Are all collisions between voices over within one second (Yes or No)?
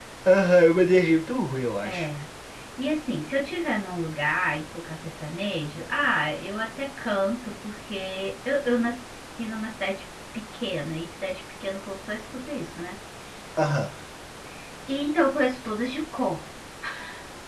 Yes